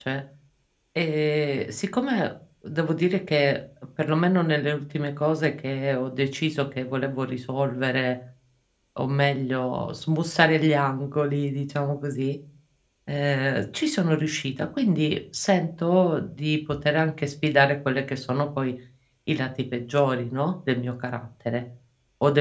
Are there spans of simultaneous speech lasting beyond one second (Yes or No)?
No